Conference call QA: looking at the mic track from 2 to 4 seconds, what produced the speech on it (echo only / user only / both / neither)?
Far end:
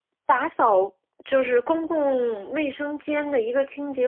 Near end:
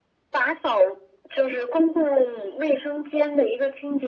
echo only